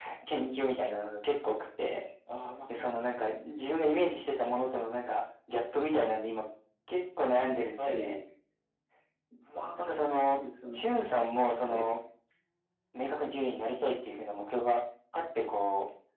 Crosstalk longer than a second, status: none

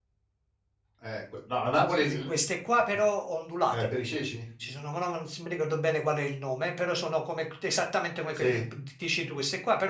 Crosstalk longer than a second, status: none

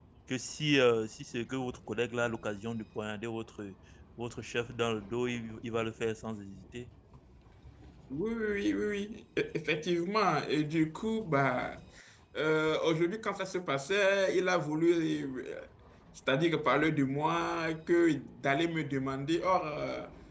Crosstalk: none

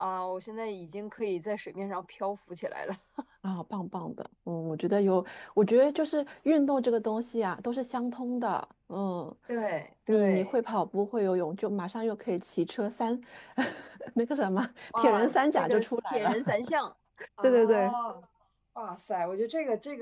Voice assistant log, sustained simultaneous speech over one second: present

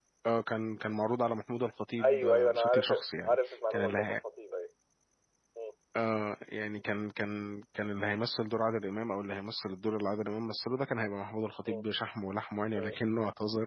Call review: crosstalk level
present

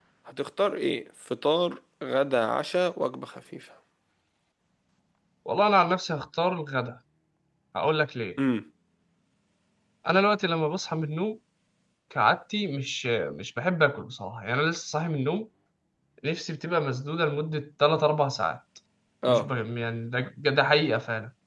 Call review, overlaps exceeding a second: none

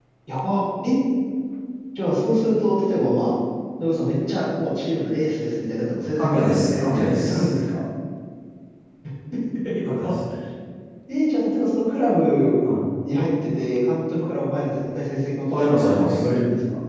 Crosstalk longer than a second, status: present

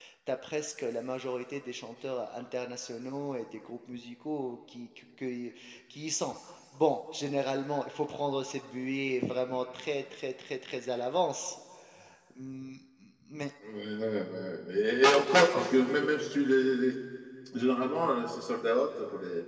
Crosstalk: none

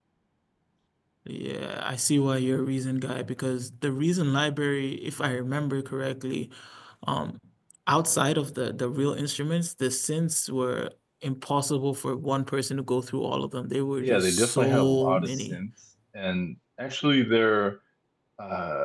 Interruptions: present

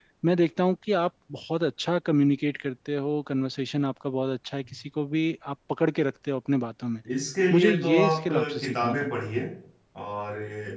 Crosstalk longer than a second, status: present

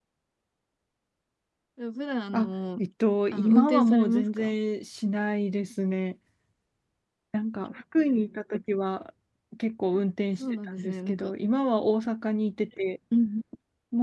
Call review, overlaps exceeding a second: present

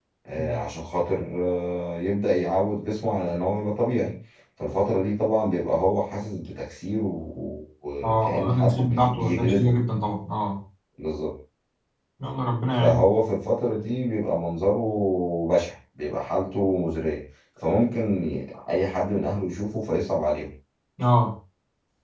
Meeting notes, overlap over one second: present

